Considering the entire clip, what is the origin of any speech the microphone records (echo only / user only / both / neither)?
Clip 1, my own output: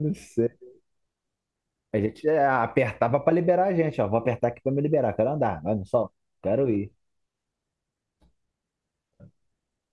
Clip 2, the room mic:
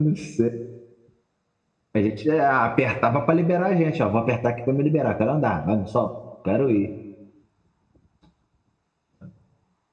echo only